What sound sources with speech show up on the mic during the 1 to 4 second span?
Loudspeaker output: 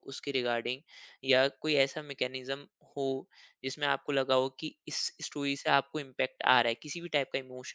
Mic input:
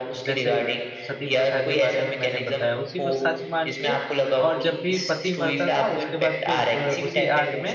both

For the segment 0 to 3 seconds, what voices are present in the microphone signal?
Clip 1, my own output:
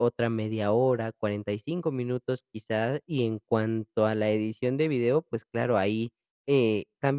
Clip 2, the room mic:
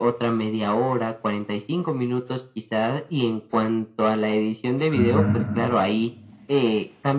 echo only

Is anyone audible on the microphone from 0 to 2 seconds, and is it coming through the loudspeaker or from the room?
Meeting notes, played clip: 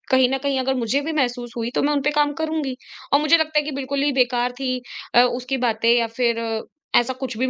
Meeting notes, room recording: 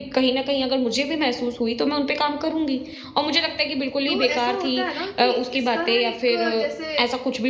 echo only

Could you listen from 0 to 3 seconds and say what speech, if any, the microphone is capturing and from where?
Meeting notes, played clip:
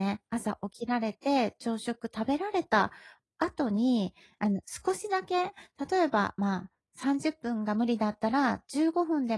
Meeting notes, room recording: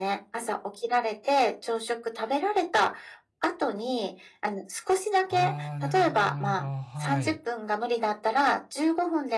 echo only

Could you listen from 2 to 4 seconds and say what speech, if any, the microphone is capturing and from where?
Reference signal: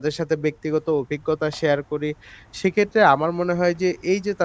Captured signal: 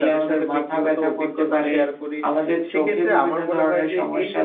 both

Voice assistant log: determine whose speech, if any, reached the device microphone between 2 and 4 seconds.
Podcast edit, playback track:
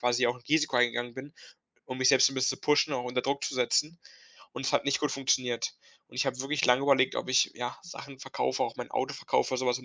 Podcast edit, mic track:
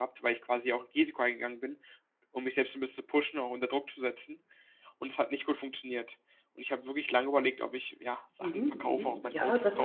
echo only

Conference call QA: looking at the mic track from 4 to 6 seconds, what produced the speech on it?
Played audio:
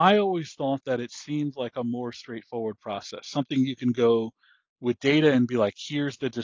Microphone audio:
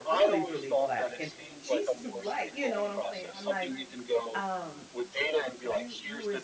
both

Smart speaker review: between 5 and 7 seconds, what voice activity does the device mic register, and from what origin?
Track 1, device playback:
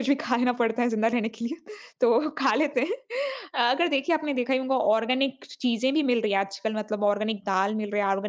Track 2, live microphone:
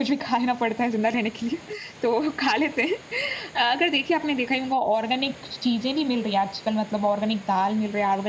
echo only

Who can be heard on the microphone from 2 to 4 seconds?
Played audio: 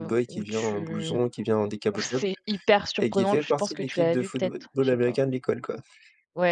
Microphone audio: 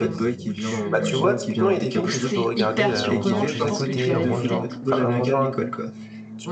both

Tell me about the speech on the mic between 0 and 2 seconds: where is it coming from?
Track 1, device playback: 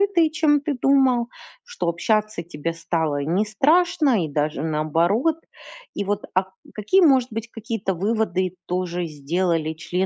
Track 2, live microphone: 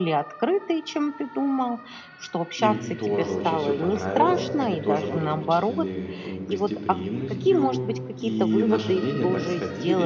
echo only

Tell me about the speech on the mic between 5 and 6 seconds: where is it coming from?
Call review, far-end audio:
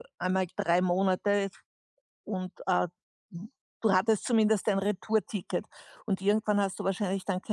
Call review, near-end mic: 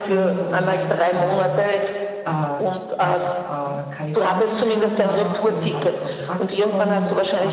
both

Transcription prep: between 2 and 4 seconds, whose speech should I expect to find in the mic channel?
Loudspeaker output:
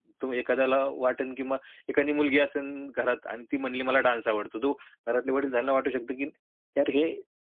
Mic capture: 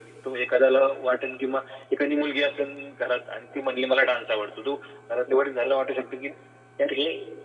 echo only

